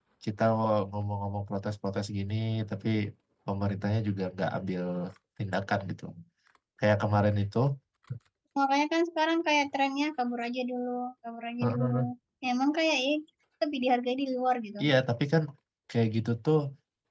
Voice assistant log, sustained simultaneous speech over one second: none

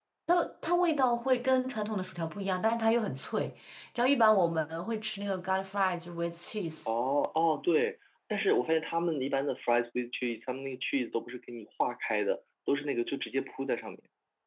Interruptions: none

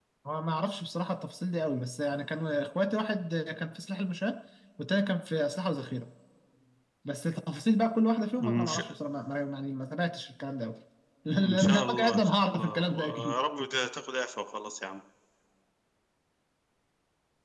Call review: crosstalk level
present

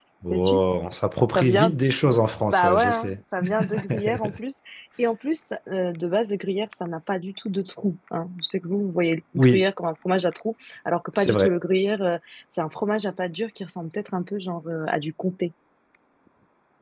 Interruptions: present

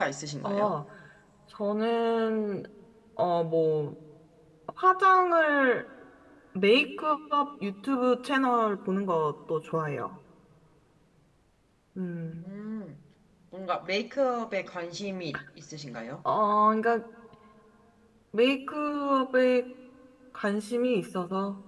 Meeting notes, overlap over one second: none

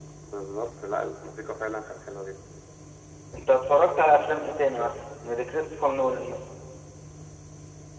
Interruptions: none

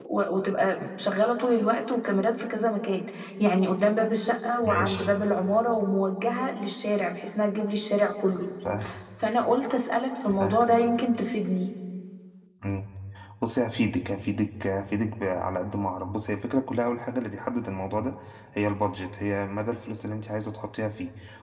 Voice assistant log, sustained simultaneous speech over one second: none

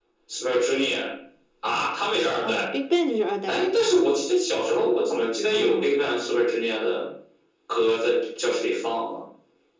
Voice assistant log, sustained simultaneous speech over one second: none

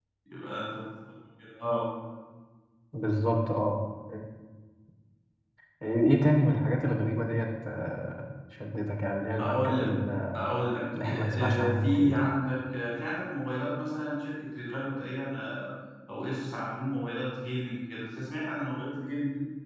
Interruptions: present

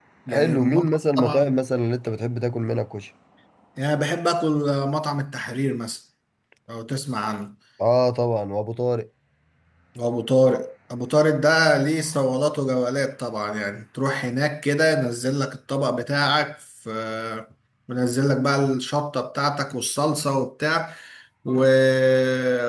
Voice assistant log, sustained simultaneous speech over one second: present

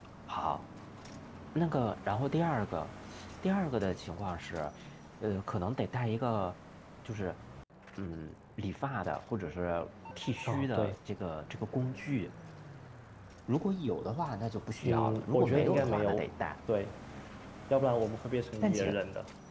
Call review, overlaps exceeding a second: present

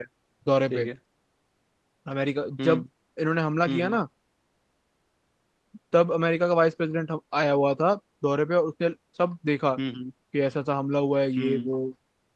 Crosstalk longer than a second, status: none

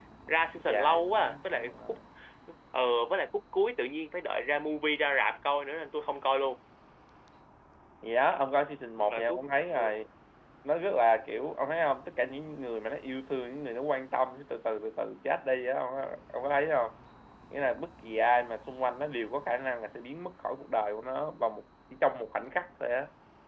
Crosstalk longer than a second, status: present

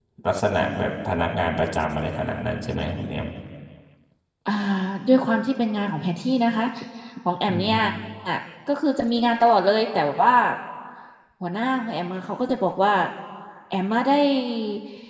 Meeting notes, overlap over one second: none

